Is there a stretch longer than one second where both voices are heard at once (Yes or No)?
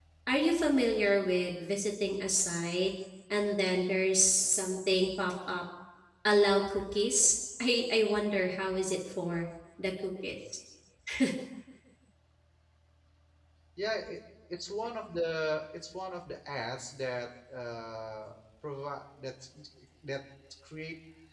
No